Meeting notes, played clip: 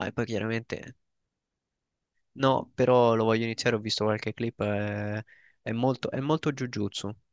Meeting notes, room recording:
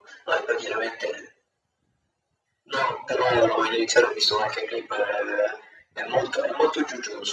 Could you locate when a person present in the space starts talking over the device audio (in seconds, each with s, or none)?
none